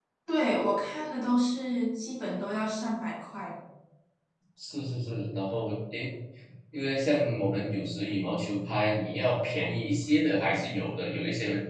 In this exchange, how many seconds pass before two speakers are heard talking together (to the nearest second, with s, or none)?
none